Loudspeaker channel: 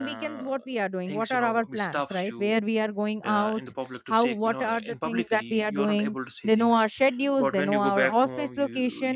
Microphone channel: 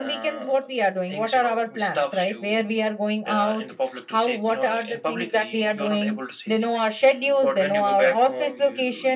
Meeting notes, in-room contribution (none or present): none